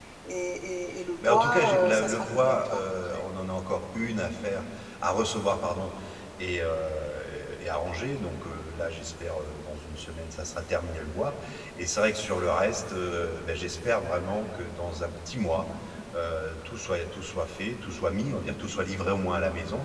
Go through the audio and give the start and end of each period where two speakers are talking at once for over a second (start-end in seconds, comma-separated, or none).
1.2-3.2